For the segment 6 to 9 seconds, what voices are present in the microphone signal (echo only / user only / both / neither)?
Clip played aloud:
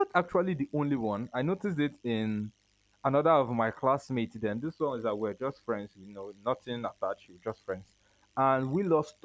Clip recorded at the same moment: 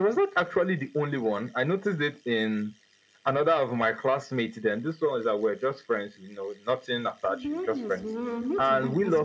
both